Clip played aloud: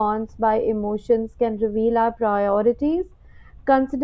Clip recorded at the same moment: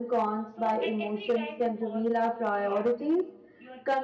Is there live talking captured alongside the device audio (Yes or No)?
Yes